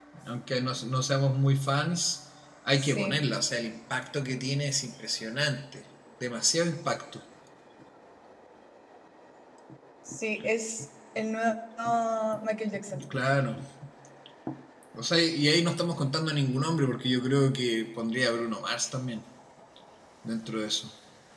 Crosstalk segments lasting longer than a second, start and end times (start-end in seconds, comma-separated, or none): none